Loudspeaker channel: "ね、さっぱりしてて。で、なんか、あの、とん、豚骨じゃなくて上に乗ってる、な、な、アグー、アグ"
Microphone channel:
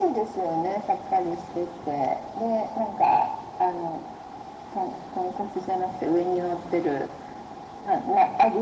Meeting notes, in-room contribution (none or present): none